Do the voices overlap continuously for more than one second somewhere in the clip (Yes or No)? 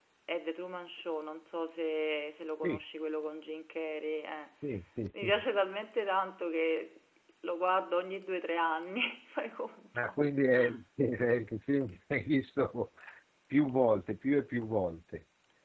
No